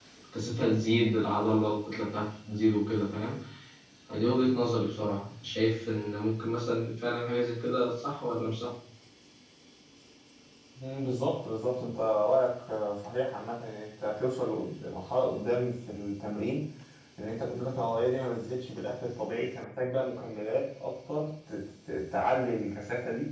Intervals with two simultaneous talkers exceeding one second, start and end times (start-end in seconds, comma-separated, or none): none